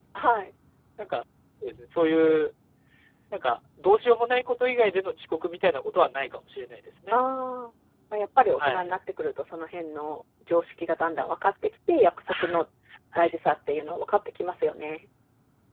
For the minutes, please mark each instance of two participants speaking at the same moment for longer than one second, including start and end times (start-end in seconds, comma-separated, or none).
none